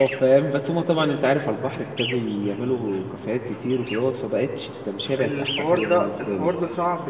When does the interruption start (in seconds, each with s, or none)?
5.2 s